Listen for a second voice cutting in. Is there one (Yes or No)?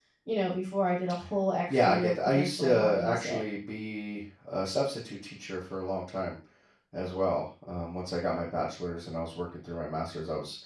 Yes